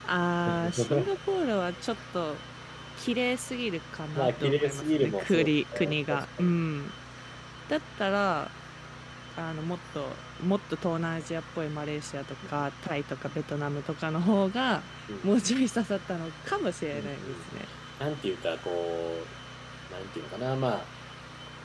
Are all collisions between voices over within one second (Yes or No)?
No